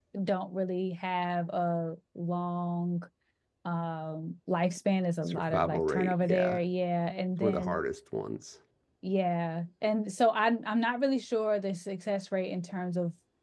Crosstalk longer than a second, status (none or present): present